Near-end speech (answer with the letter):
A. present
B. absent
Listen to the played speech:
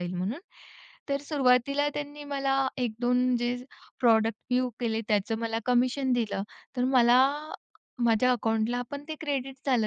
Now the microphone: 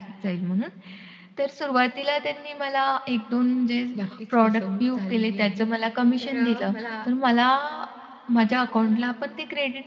A